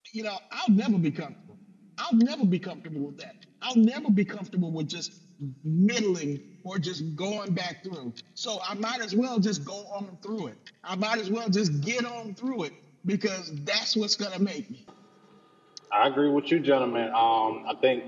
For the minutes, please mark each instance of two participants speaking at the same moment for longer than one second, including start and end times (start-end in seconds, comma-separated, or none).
none